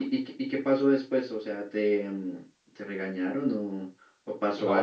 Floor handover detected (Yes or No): Yes